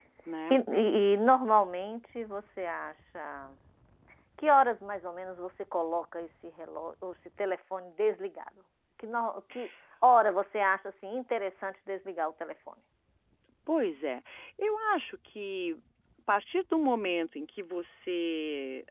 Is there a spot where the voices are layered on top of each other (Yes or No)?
No